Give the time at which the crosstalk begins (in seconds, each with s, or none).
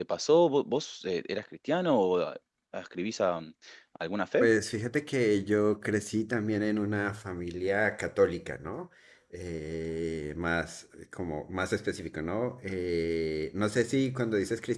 none